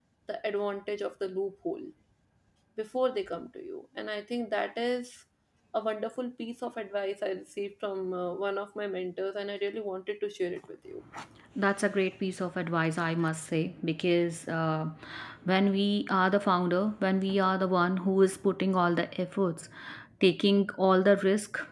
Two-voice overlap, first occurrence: none

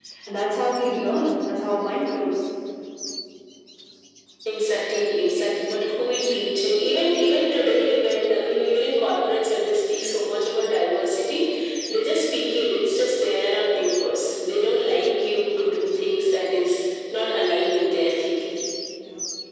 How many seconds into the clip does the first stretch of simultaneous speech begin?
none

